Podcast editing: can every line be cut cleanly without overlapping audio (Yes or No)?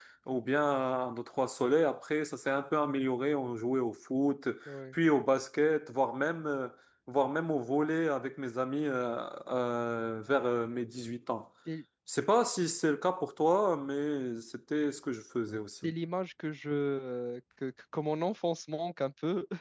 Yes